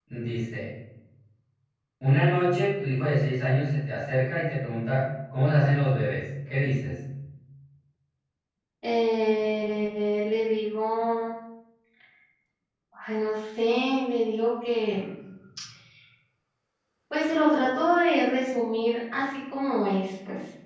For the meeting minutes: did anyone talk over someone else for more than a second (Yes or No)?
No